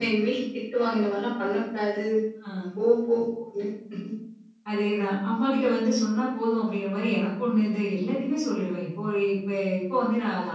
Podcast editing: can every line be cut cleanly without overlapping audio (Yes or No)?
Yes